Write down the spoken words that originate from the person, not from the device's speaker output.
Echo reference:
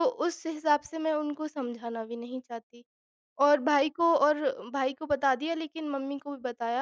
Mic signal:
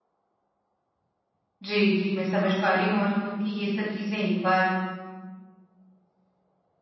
जी, जी, मैं समझ पा रही हूँ और क्योंकि ये सब चीज़ें एक बार

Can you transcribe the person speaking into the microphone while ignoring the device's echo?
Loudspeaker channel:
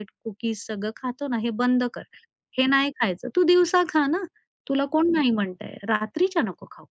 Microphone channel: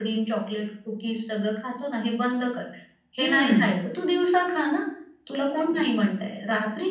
हं,

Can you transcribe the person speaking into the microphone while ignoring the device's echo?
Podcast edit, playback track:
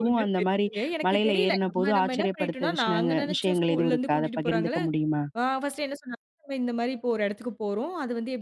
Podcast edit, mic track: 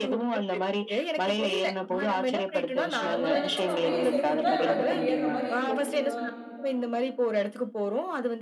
ம் அந்த மலையில நம்ம அப்படியே செங்குத்தா நம்ம இப்படி ஏறுற மாரி இருக்கும். அ

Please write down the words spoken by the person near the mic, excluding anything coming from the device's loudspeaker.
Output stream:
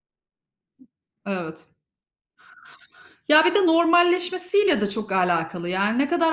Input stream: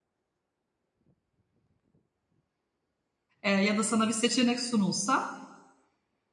eee, ya da sana bir seçenek sunulsa,

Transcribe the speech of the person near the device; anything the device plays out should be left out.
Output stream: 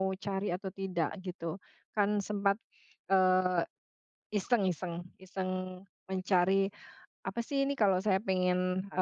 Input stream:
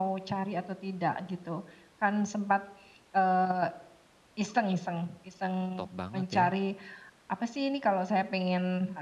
top banget ya.

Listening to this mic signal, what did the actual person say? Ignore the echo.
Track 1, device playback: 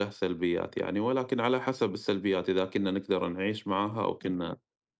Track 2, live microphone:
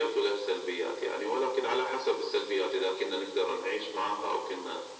none

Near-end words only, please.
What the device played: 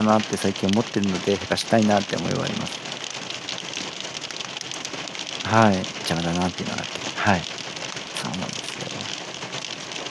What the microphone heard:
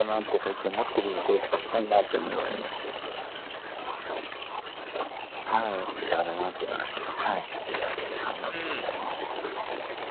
うん。

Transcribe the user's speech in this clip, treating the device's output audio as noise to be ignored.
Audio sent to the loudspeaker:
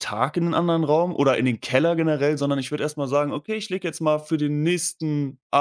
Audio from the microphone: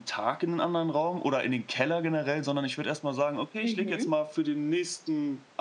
Mhm.

